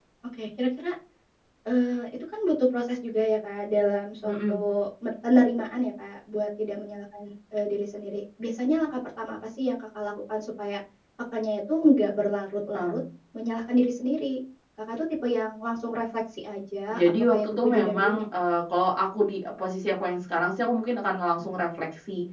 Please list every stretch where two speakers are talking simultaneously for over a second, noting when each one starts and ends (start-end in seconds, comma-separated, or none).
16.9-18.2